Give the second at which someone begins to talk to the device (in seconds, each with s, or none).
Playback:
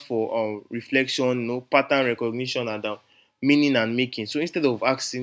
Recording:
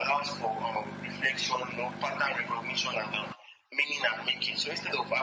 none